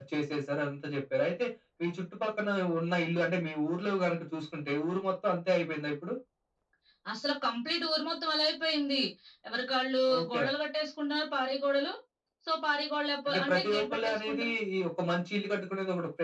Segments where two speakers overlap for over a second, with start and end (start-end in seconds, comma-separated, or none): 13.3-14.5